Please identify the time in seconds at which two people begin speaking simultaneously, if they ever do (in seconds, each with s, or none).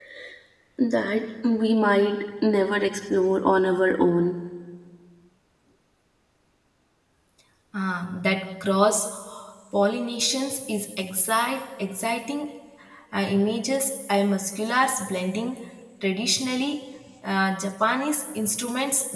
none